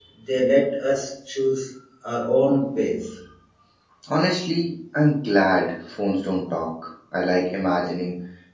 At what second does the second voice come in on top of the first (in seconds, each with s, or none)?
none